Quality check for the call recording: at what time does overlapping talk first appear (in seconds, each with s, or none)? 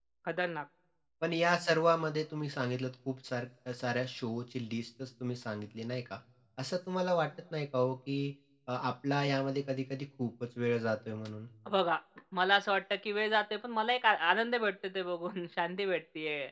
none